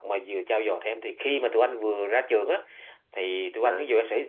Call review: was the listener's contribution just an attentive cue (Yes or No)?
Yes